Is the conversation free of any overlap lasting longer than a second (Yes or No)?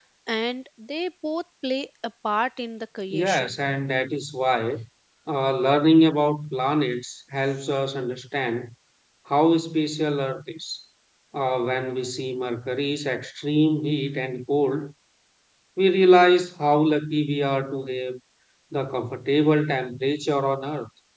Yes